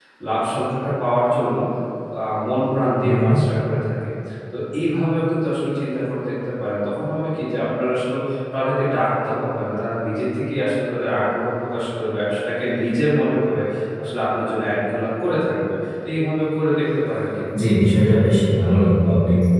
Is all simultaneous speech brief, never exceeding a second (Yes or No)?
Yes